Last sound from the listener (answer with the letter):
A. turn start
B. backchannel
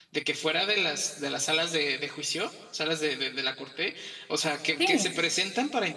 B